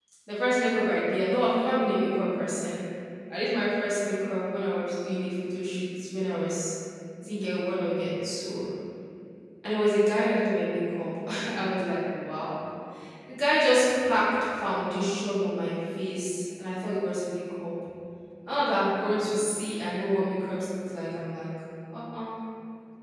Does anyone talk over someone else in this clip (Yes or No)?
No